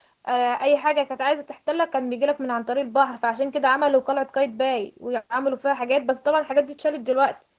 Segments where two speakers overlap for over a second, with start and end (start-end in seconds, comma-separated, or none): none